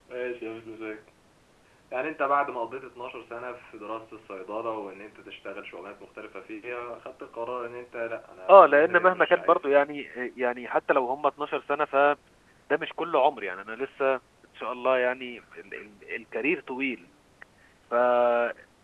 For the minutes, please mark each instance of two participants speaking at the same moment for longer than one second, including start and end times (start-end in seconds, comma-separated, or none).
8.5-9.8